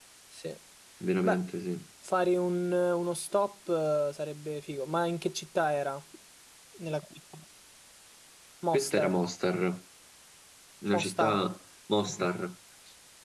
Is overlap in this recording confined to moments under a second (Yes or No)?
Yes